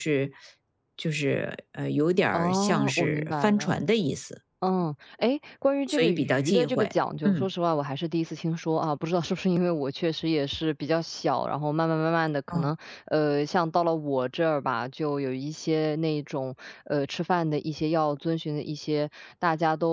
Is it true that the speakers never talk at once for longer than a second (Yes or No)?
No